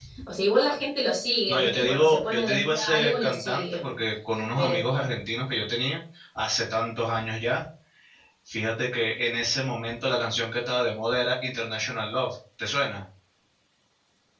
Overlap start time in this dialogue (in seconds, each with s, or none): 1.5 s